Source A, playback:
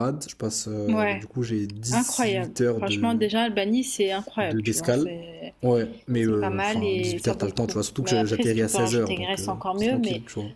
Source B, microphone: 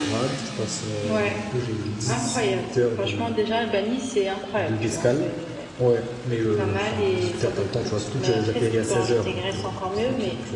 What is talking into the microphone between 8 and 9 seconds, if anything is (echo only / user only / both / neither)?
echo only